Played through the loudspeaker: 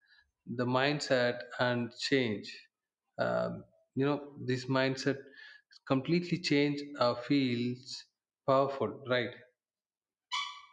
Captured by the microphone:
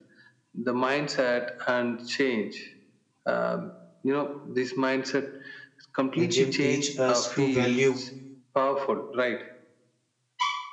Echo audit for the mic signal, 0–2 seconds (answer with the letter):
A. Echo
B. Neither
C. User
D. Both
A